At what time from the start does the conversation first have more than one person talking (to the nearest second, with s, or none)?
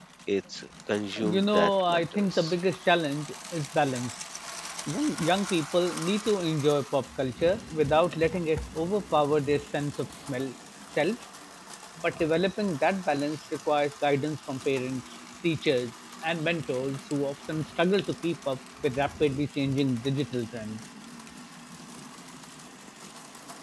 1 s